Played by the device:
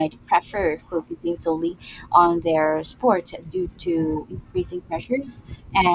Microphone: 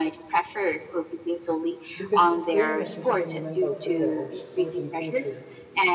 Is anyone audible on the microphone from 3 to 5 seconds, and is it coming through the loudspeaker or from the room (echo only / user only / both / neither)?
both